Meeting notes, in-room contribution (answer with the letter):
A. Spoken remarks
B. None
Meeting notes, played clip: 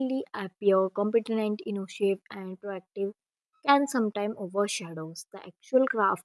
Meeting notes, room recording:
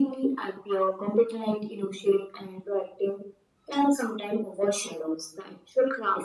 B